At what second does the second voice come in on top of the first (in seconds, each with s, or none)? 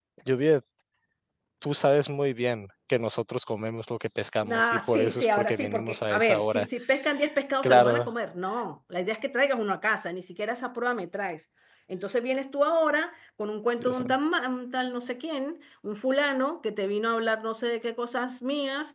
4.4 s